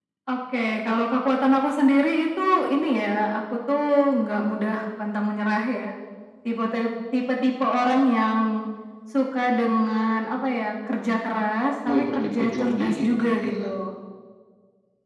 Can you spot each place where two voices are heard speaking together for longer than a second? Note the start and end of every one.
11.9-13.7

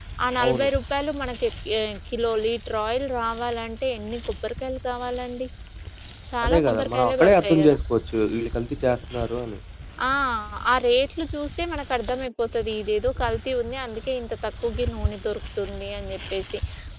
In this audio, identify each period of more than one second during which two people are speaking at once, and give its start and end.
6.4-7.8

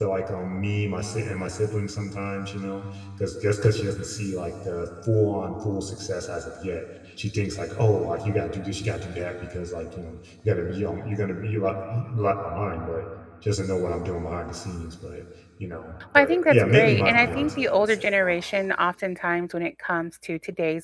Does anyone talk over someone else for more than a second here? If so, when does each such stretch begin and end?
16.1-18.6

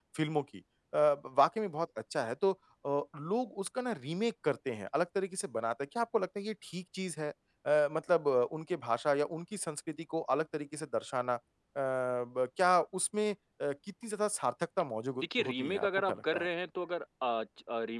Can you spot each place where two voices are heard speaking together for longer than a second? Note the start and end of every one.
15.2-16.5

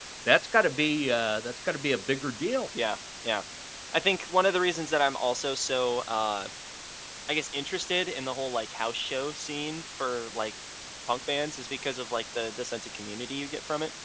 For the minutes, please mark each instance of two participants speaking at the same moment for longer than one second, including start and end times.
none

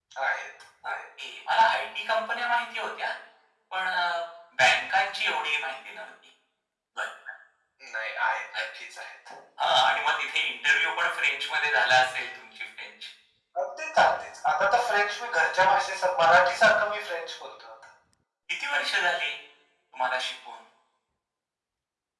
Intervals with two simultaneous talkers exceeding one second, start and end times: none

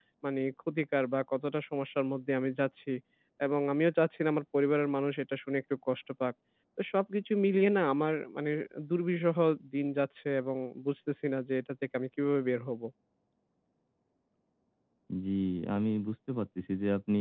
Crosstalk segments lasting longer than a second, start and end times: none

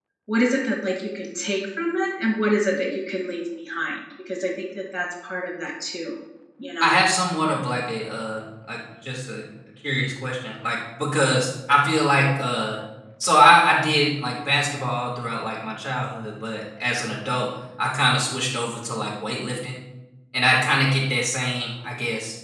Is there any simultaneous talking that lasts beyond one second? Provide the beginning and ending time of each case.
none

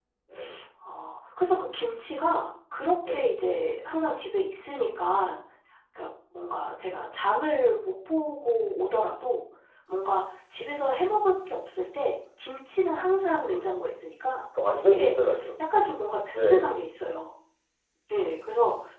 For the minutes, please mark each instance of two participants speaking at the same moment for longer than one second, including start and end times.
none

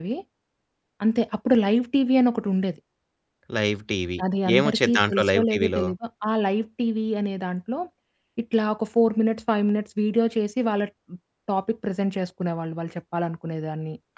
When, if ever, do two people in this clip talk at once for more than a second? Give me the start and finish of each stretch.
4.5-5.8

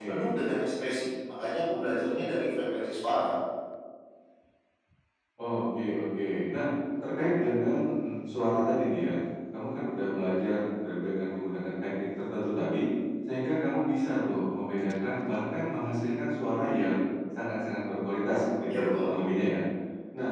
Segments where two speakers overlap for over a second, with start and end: none

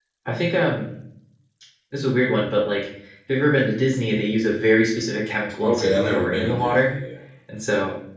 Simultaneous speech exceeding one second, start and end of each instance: 5.6-6.9

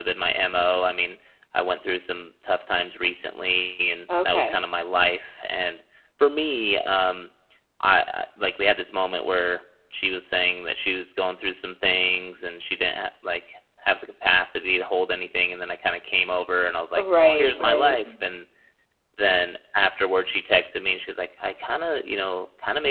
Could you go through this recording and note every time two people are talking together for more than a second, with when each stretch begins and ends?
17.0-18.2

